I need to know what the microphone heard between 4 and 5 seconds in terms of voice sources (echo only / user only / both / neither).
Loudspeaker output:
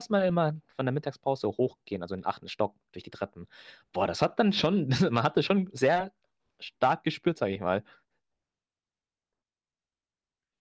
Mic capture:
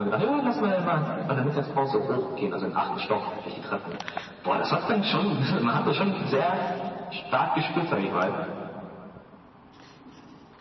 echo only